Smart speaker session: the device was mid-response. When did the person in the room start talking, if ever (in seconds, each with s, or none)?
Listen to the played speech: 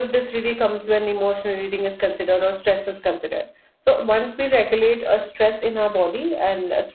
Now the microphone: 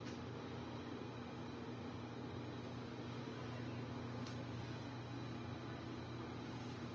none